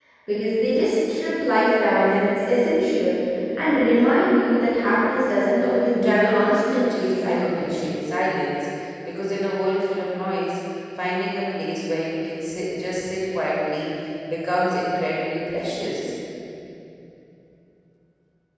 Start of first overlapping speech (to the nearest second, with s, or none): 6 s